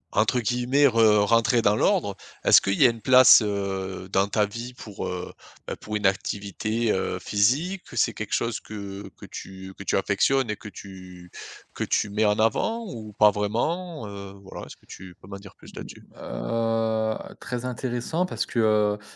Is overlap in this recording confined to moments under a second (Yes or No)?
Yes